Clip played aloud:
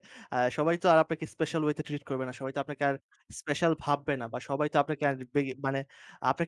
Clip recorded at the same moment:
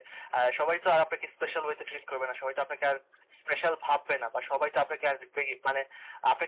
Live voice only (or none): none